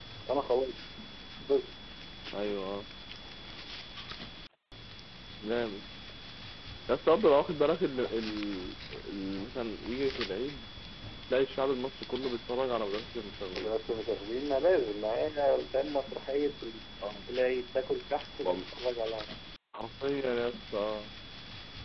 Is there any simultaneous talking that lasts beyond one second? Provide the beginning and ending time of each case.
none

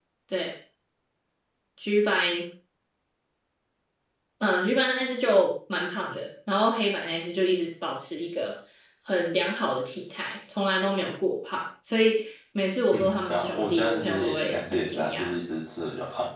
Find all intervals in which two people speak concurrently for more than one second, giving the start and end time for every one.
12.9-15.3

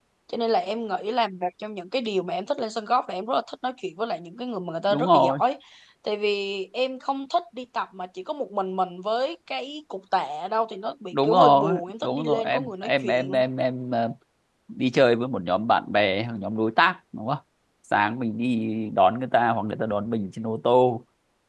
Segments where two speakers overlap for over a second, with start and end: 11.1-13.3

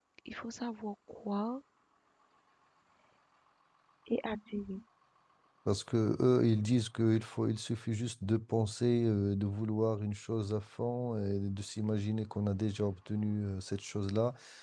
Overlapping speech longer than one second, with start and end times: none

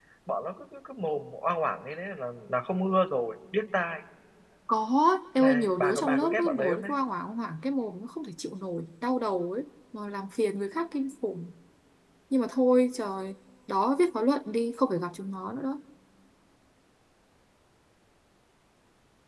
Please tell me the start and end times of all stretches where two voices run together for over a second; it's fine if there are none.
5.4-6.9

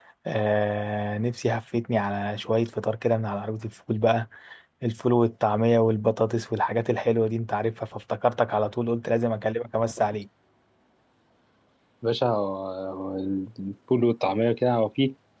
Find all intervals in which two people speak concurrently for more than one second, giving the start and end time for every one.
none

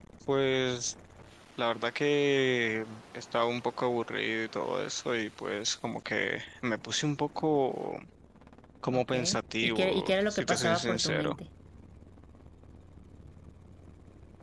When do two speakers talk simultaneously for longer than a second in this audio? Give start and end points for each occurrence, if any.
9.6-11.4

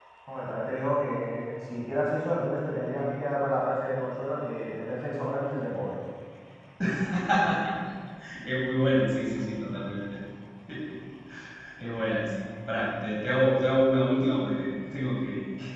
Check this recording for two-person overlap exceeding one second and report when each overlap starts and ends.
none

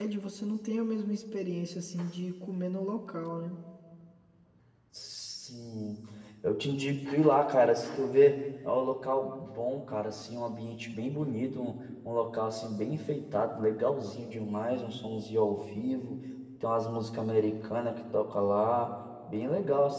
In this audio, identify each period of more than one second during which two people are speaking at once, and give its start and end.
none

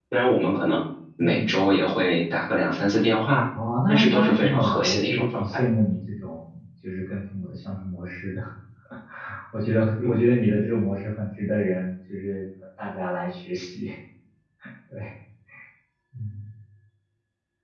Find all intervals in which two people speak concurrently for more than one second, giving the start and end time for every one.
3.9-5.6

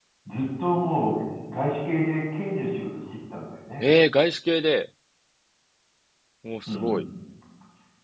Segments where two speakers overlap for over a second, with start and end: none

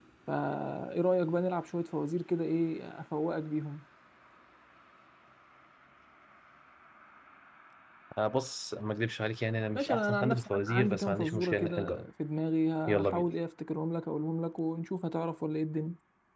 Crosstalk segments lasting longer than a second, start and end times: 9.7-12.1

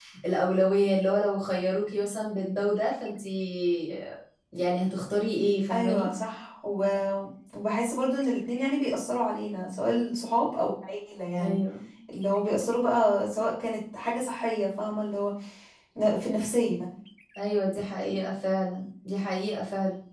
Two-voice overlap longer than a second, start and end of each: none

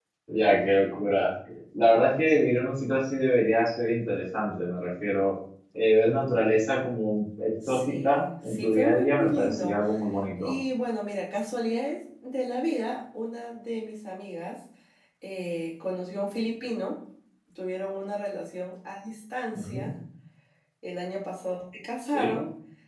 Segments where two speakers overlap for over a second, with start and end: 7.7-9.8

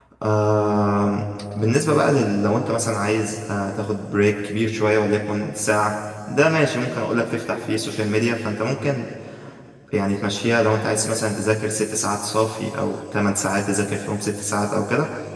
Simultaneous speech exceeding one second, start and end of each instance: none

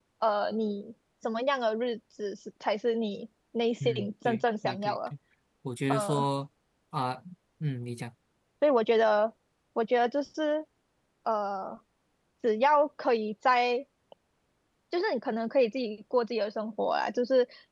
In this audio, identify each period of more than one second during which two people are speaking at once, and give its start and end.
3.9-5.1

